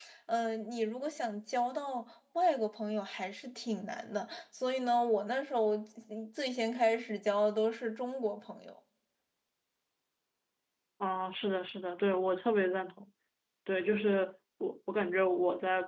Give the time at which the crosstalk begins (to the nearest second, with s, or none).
none